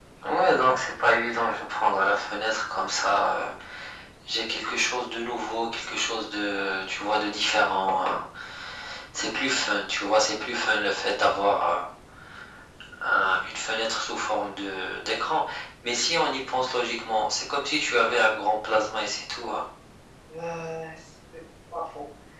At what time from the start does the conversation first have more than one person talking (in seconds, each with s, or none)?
none